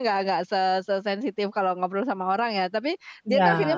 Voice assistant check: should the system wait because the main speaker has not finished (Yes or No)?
Yes